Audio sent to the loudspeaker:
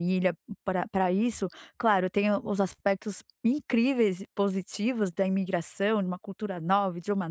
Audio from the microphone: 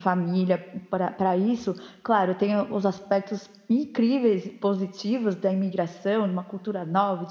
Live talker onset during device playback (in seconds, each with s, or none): none